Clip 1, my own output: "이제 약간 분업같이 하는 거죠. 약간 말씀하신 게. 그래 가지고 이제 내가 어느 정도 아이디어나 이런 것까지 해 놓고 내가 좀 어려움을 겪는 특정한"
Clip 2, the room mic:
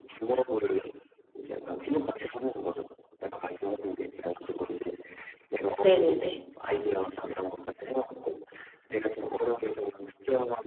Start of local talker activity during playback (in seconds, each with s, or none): 5.8 s